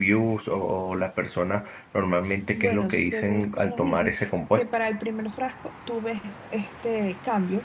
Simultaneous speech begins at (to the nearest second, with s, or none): 3 s